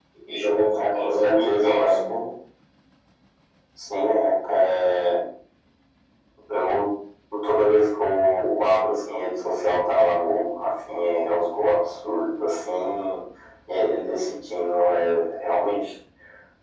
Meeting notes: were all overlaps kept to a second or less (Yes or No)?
No